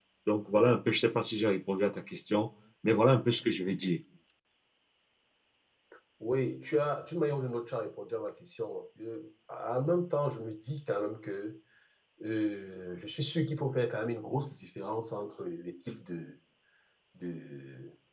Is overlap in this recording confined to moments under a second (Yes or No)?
Yes